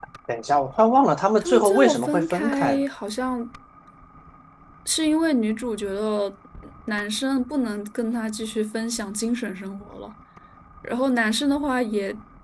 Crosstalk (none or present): present